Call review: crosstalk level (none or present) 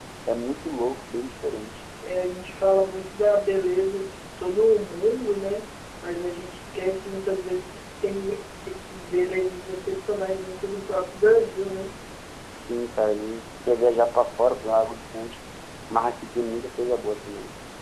none